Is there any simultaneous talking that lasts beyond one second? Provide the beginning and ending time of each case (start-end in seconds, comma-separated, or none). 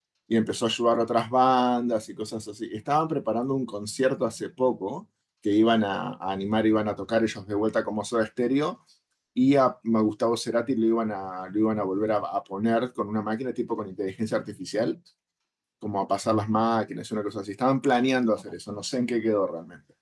none